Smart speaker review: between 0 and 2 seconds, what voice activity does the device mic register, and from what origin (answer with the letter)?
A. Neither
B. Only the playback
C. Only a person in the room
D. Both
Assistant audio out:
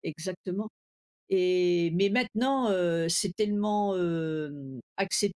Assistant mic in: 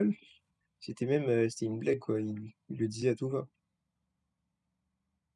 C